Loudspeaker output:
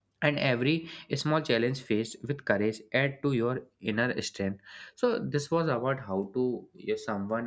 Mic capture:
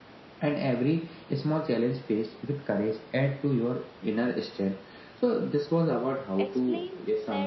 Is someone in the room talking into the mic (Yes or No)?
Yes